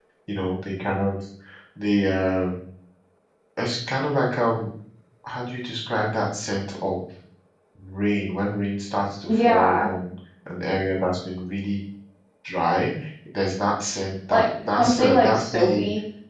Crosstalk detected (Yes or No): Yes